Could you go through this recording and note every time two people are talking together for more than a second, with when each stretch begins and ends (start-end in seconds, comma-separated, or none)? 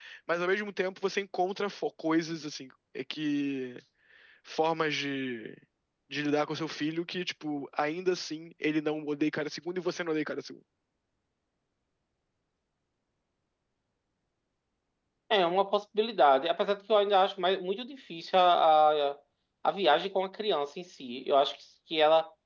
none